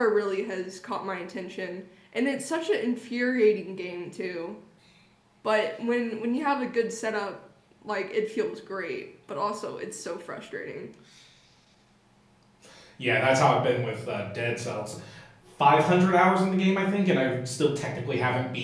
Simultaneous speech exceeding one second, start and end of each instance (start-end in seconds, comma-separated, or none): none